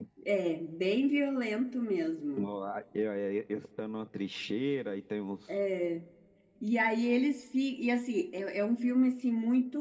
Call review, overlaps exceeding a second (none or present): none